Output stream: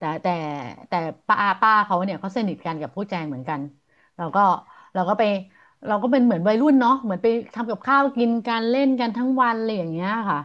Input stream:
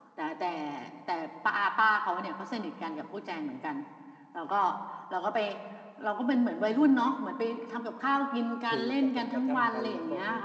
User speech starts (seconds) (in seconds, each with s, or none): 8.7 s